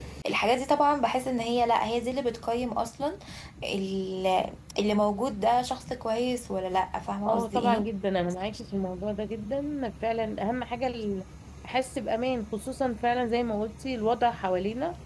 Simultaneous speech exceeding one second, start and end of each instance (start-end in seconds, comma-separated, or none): none